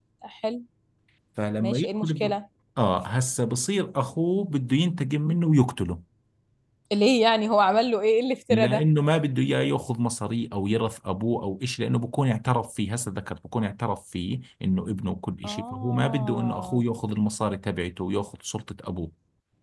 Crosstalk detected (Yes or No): Yes